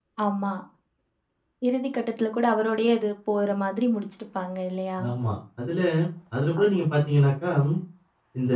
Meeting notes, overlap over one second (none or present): none